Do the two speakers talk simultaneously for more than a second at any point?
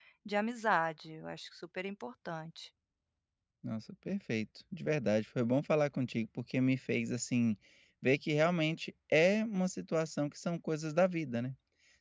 No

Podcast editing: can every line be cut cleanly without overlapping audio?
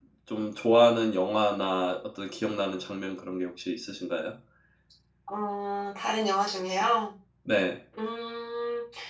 Yes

